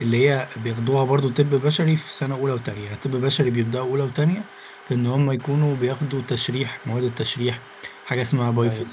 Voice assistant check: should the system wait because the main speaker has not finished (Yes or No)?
Yes